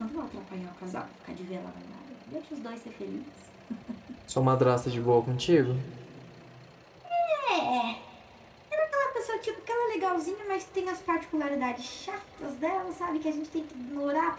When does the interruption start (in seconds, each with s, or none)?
none